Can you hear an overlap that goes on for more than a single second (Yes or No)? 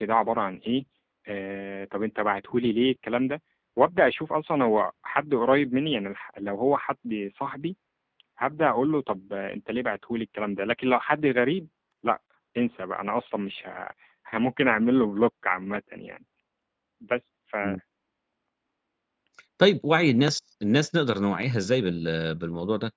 No